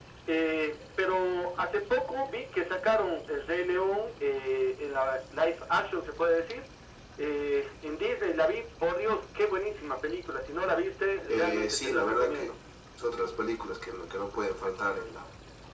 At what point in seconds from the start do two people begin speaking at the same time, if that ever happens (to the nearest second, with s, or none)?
11 s